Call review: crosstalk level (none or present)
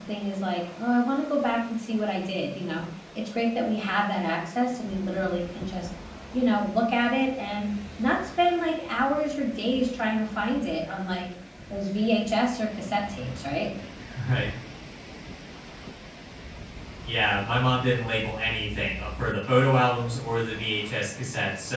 none